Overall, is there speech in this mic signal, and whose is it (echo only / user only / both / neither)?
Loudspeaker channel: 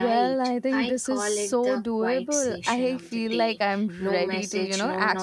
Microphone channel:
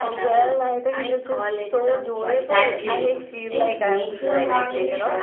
both